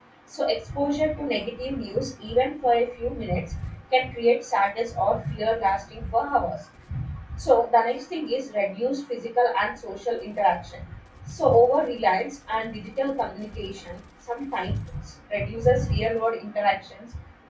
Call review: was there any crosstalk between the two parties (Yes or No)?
No